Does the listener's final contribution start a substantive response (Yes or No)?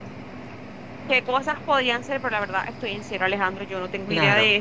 No